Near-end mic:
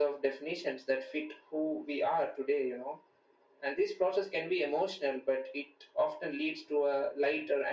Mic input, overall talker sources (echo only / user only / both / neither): echo only